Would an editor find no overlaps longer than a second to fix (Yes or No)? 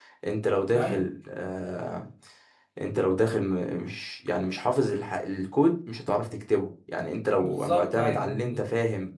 No